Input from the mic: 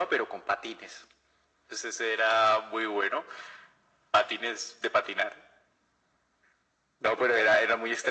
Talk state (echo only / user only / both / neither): echo only